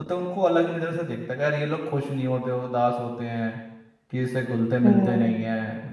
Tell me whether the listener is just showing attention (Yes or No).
Yes